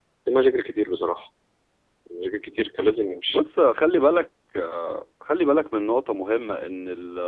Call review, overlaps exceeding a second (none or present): none